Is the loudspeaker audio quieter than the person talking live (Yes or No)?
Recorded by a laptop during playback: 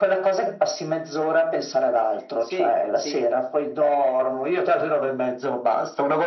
No